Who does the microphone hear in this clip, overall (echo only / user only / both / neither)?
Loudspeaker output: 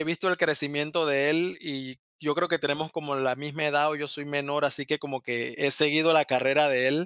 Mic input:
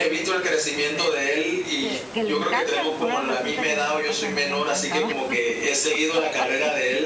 both